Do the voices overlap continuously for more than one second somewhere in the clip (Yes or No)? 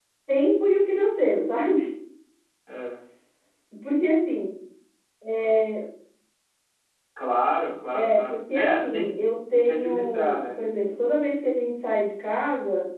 Yes